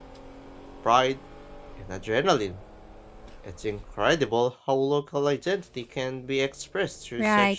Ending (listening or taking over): taking over